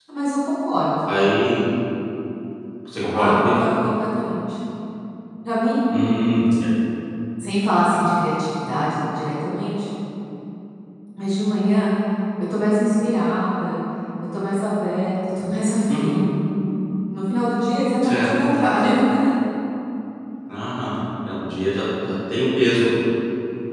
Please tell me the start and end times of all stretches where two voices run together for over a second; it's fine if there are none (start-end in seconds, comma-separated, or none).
none